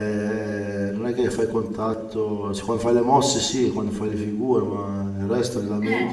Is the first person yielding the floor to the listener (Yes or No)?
No